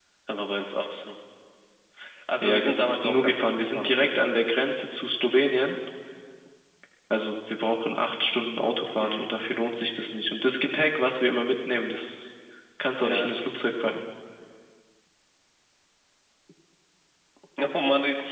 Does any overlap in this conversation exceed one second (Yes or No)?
Yes